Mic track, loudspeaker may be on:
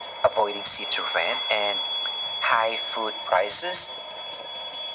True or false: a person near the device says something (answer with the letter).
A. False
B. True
A